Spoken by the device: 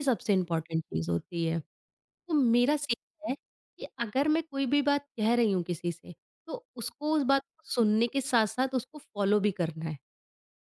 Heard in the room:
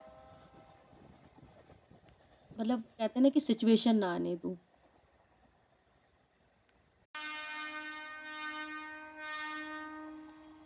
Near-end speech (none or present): present